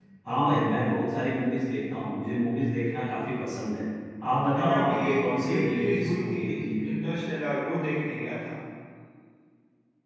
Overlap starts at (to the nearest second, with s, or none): 5 s